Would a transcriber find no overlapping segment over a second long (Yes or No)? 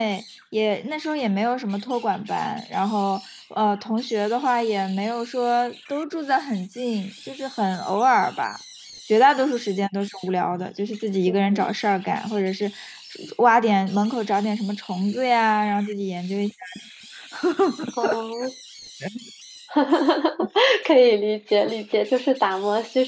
Yes